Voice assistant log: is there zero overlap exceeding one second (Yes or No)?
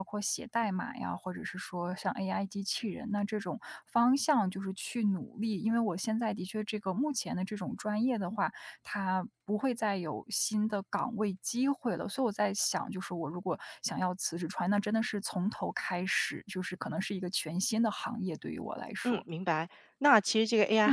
Yes